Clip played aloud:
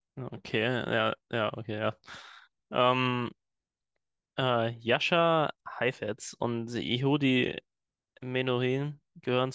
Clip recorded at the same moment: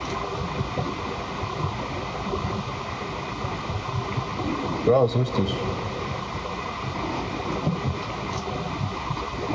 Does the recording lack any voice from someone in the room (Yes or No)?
No